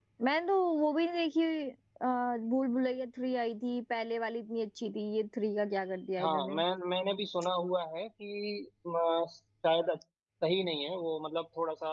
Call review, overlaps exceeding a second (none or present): none